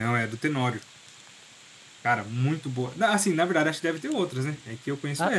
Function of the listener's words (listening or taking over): taking over